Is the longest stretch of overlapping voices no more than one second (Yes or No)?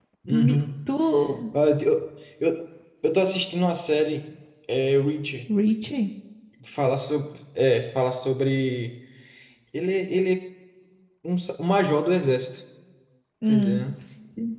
Yes